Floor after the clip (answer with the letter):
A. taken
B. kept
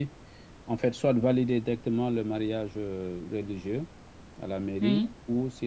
B